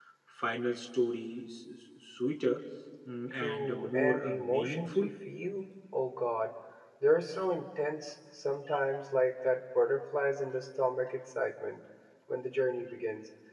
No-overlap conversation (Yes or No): No